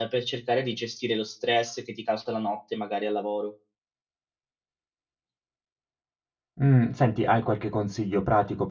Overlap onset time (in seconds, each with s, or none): none